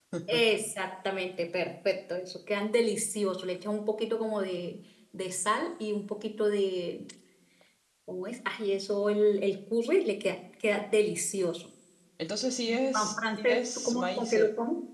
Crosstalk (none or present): present